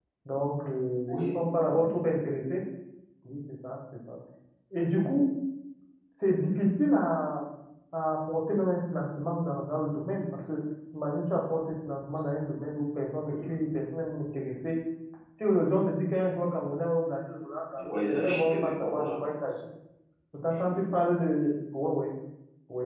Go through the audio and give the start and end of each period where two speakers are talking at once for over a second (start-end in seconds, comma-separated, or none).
17.9-19.1